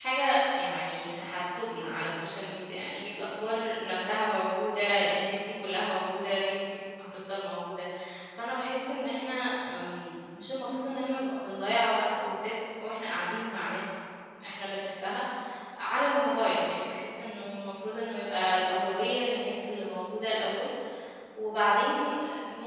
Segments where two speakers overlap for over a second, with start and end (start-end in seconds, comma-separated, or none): none